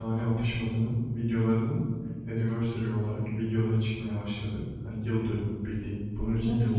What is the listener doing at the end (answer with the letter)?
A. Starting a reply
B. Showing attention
A